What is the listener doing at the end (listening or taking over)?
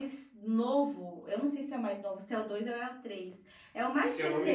taking over